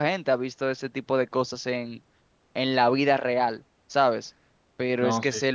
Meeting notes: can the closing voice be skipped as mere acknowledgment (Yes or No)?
Yes